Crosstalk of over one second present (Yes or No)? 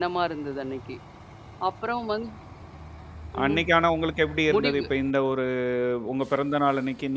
No